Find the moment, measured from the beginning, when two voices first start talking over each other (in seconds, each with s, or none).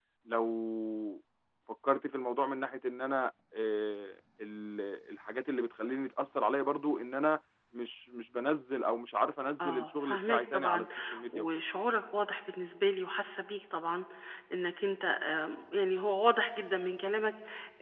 9.6 s